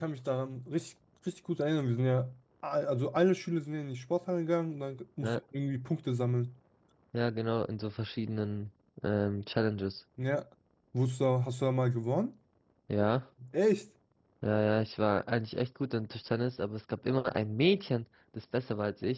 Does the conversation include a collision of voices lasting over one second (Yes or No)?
No